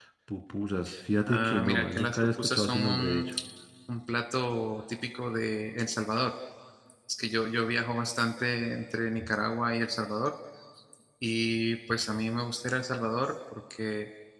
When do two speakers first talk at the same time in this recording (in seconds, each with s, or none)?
1.3 s